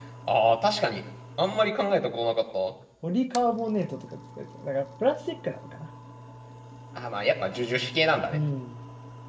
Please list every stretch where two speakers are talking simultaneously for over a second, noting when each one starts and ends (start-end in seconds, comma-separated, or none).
none